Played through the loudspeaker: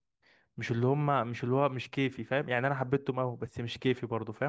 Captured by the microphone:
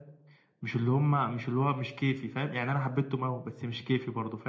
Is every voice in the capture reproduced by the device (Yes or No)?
Yes